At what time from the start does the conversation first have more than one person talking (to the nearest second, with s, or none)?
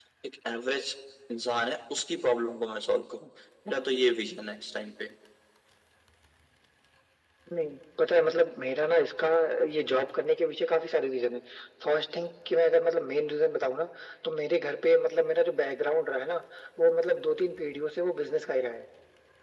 none